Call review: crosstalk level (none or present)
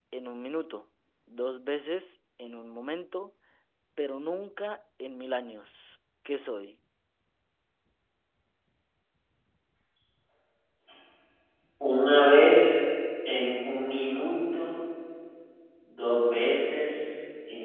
none